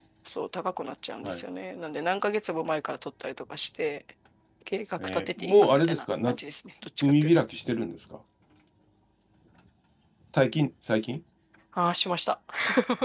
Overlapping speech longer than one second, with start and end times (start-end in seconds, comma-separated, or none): 5.0-6.4